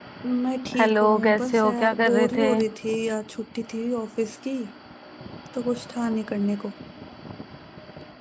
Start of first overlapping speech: 1 s

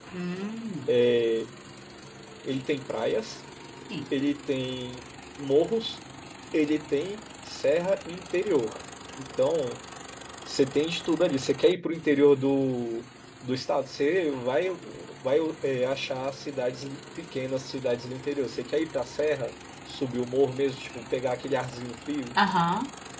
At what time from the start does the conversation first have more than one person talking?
none

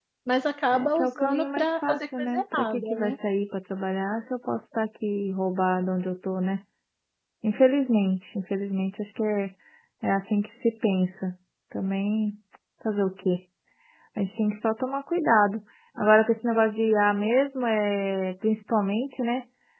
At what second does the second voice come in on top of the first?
1 s

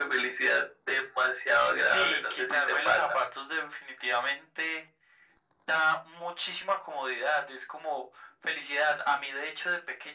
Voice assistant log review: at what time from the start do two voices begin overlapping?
2 s

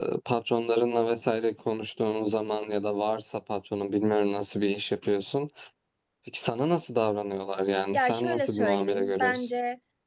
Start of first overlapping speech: 8 s

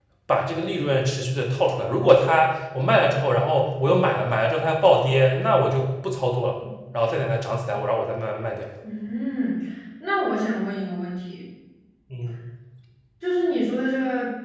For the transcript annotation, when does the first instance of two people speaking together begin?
none

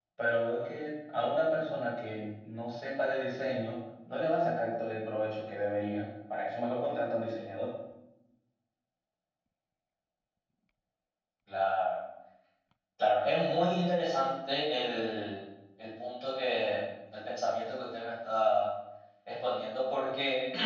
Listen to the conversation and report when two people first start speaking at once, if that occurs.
none

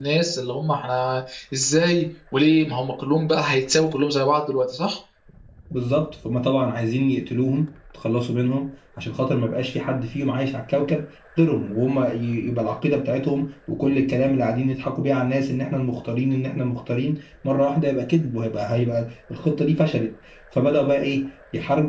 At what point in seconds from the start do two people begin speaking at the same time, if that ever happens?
none

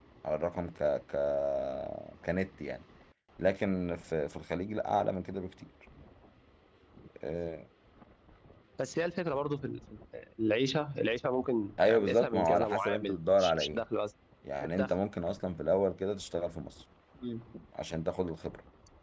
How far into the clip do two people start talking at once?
12 s

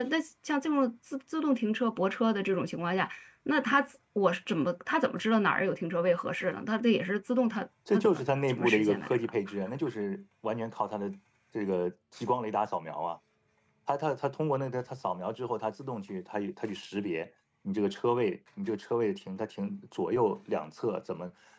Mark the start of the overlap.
8 s

